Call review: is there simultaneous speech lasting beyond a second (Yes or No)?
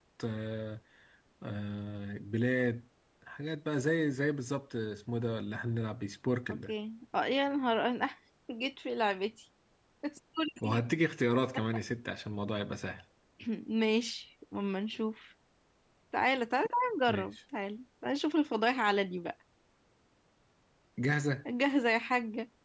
No